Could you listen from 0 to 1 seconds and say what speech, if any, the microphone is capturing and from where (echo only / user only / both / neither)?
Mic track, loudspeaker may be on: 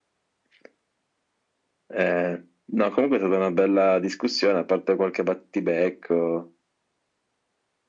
neither